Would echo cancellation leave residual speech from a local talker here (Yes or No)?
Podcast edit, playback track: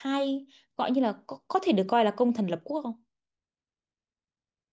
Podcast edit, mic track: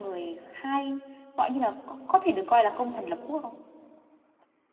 No